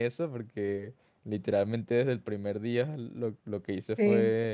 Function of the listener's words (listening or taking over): listening